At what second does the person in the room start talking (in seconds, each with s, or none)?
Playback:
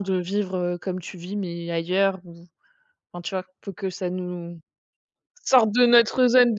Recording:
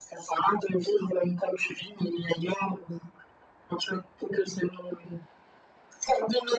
none